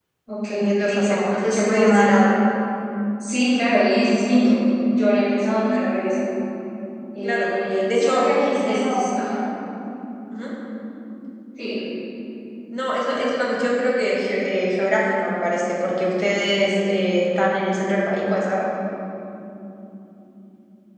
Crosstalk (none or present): present